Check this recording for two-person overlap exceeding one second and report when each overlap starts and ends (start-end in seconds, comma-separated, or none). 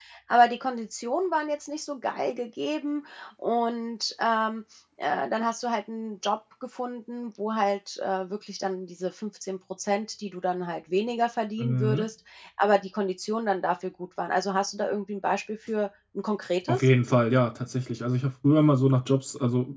none